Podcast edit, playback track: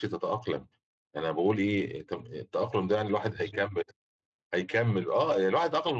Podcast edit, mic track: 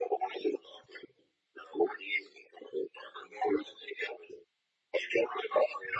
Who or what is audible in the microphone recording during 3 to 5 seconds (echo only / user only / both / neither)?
echo only